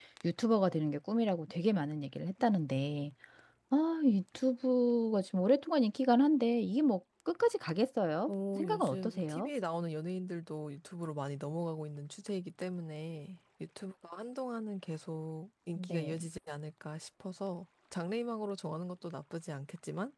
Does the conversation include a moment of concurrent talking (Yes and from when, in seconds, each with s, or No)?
Yes, from 8.3 s